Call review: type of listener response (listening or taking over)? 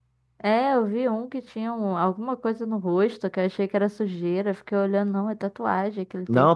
taking over